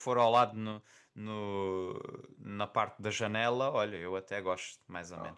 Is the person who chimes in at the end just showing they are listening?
No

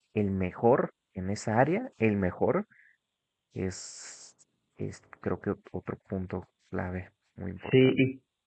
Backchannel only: No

